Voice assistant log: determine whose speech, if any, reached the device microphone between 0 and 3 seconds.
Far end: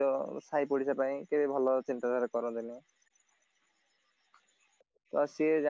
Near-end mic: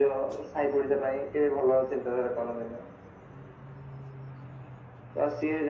echo only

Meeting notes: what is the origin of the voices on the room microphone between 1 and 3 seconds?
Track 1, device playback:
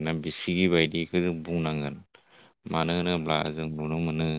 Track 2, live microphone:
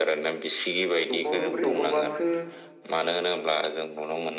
both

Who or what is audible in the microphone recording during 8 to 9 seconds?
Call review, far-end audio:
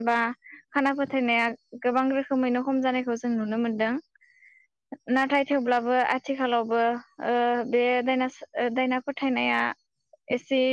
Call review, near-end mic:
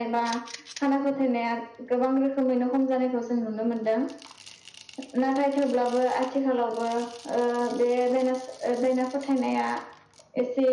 echo only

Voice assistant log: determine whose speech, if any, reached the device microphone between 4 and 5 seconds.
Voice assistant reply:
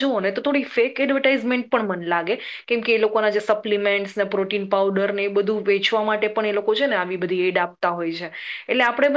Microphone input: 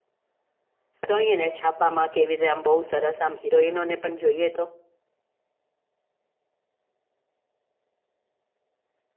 user only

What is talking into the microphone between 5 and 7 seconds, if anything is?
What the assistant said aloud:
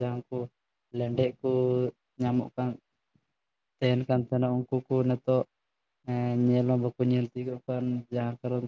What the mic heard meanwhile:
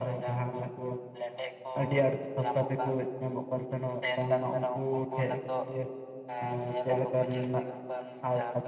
both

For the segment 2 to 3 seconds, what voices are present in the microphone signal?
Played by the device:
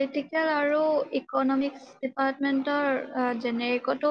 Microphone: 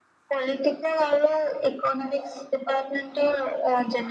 echo only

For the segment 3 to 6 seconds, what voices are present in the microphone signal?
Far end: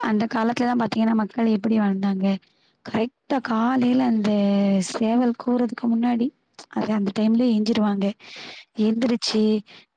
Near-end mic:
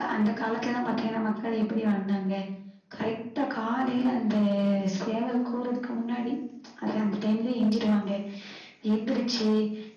echo only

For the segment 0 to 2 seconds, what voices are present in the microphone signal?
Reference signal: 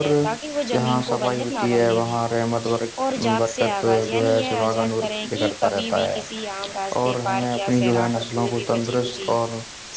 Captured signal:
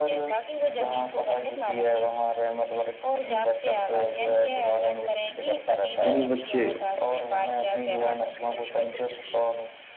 echo only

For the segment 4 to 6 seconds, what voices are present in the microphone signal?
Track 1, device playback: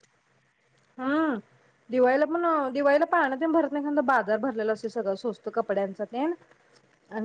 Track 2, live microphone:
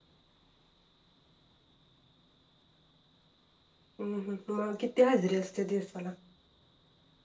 user only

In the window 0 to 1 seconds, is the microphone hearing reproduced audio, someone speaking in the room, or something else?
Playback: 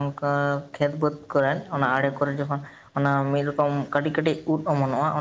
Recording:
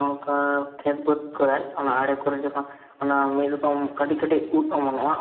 echo only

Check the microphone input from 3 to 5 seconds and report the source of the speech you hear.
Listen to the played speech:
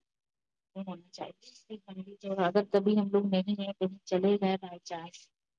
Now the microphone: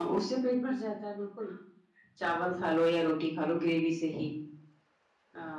user only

